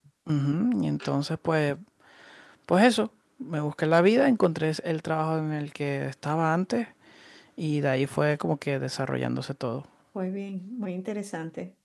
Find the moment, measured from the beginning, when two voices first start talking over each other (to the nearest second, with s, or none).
none